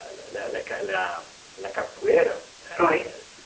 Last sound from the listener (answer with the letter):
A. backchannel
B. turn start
A